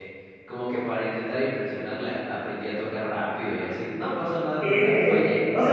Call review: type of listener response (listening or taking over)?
taking over